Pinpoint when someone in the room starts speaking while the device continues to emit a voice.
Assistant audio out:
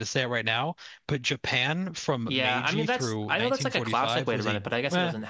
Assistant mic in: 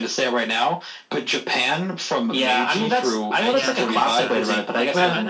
3 s

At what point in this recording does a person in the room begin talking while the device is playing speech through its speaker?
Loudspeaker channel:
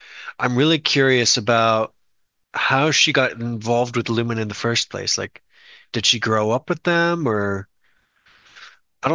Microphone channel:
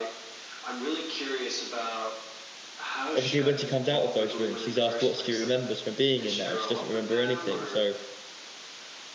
3 s

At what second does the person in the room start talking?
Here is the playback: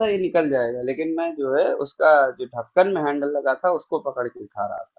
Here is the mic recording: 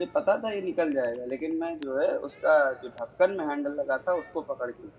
none

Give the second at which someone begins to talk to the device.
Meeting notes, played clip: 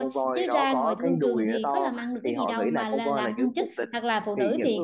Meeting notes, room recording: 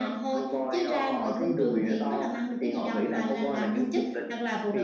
none

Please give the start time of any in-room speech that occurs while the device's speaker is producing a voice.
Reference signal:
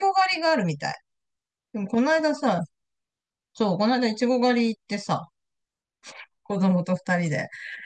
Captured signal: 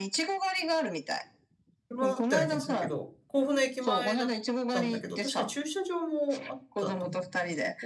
2 s

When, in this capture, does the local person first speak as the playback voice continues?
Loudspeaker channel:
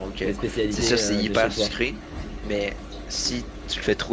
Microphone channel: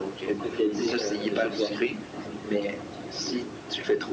none

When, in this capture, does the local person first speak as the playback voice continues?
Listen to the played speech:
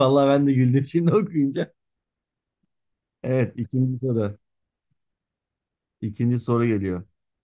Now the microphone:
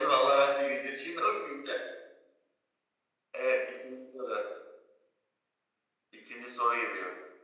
none

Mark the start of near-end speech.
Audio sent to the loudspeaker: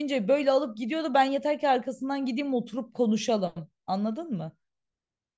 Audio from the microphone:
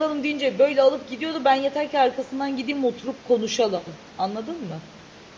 none

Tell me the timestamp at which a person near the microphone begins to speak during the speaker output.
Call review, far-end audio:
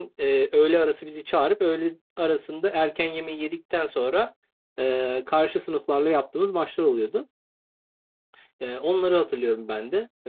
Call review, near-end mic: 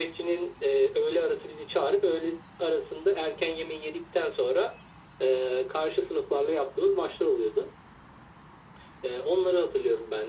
none

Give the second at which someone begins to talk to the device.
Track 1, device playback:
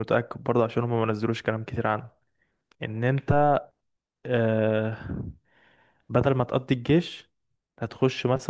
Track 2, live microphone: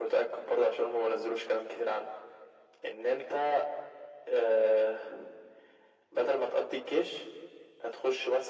none

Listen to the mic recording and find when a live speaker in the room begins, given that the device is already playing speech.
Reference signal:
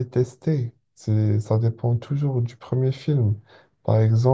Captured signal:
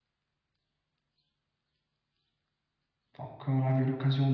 3 s

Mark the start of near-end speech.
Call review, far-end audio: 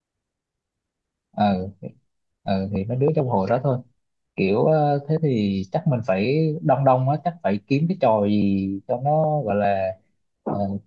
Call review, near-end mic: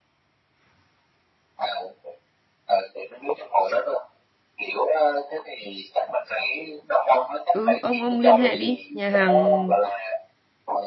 8 s

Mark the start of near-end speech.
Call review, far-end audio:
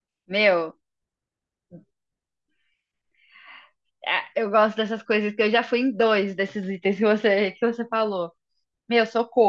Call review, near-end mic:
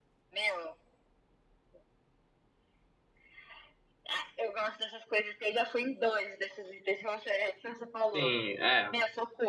8 s

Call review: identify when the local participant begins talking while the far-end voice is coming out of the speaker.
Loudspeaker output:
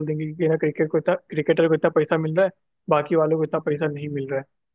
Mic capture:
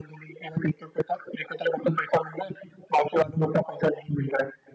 none

